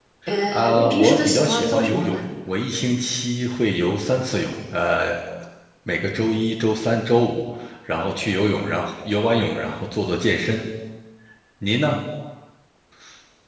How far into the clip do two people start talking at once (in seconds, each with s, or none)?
0.5 s